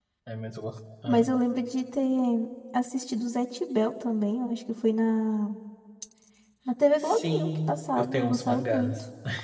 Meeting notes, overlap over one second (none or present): present